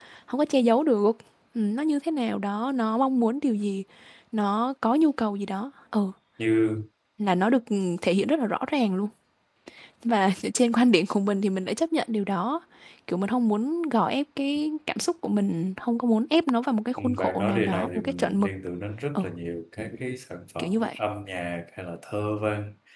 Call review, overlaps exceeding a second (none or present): present